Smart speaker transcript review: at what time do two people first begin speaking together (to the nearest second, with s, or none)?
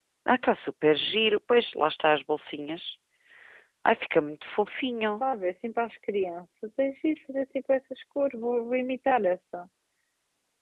none